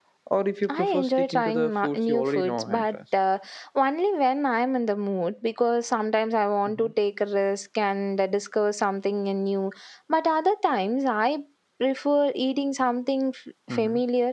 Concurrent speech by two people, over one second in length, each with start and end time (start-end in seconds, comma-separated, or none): 0.7-3.0